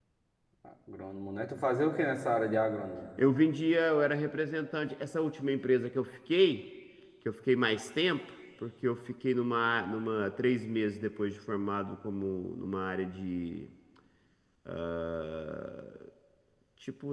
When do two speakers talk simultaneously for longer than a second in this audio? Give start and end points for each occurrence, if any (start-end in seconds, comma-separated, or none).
none